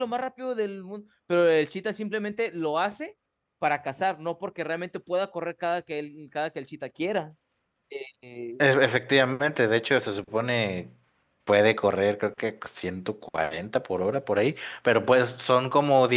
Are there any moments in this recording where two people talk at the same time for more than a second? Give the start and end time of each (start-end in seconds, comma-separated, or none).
none